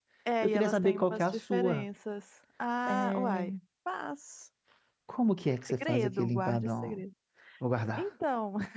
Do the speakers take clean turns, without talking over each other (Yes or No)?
No